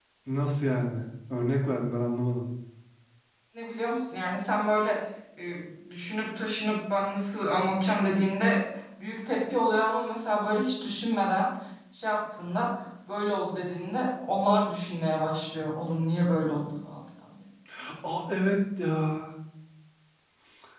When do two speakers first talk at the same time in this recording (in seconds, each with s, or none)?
none